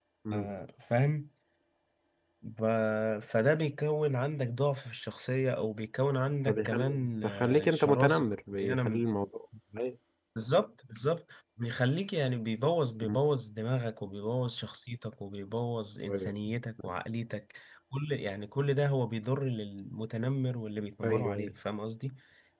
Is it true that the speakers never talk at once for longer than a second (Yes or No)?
No